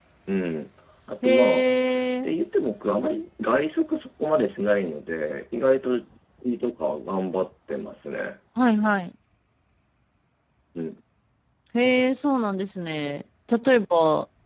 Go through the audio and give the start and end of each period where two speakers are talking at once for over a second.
none

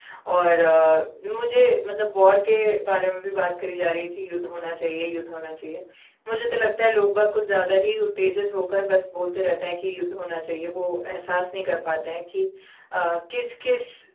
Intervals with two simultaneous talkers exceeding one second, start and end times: none

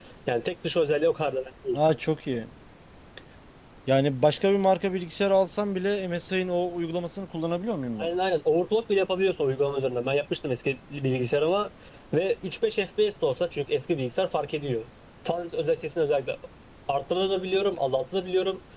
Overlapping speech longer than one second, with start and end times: none

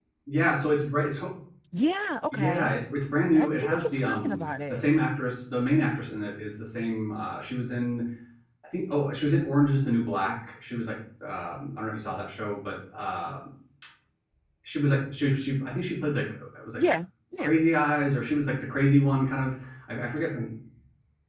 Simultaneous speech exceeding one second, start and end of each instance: 3.4-4.8

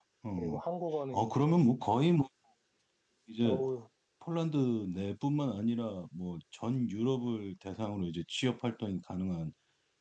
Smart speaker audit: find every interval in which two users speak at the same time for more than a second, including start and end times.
none

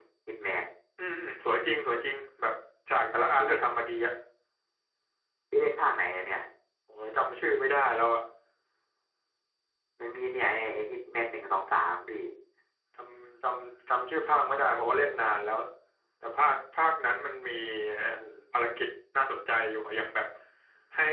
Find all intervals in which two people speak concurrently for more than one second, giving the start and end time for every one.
none

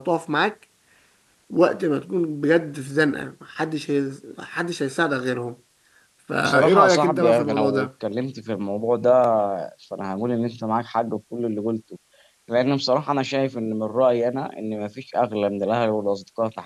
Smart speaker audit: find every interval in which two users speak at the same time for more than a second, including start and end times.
6.4-7.9

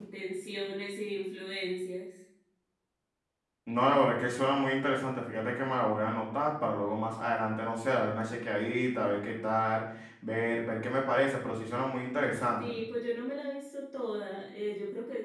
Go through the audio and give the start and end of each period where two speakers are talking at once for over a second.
none

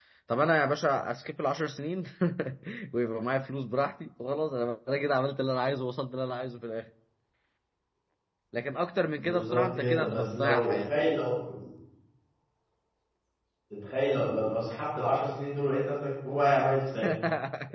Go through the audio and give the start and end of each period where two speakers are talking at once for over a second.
9.2-11.2

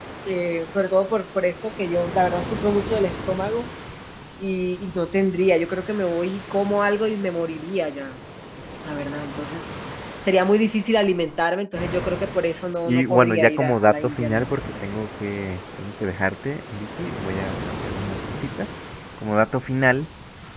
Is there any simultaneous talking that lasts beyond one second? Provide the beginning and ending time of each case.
12.8-14.5

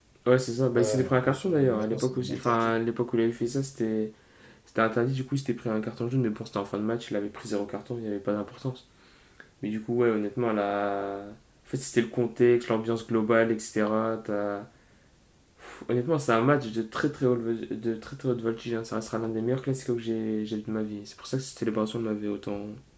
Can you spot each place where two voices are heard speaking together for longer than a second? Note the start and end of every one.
0.7-2.8

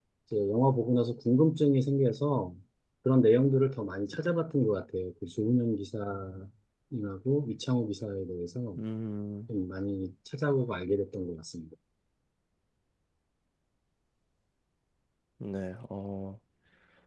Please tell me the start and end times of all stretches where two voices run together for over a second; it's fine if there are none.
none

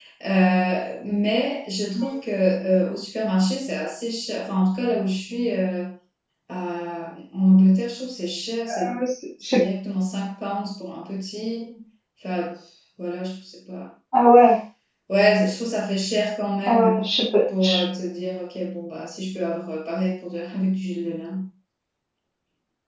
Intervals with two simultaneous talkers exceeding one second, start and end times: none

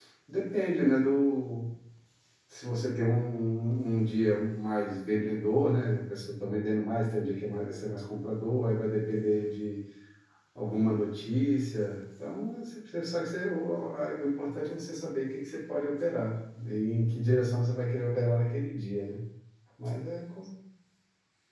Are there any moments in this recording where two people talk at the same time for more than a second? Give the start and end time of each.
none

